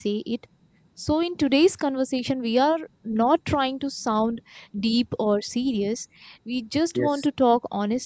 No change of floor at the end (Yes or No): Yes